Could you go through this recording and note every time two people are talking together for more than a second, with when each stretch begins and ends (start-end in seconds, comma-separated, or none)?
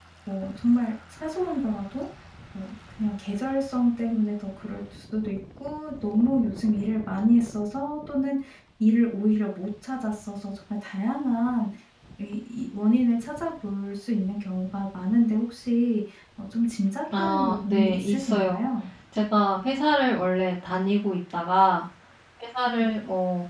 17.2-18.6